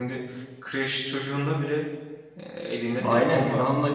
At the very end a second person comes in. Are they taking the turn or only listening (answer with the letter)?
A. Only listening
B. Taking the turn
B